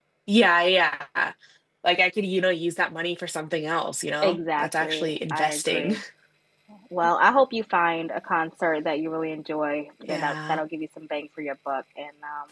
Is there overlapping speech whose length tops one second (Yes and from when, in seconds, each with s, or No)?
Yes, from 4.2 s